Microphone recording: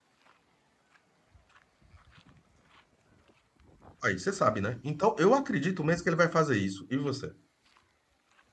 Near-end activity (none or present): present